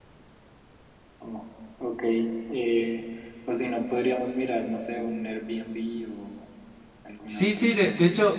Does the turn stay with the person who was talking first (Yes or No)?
No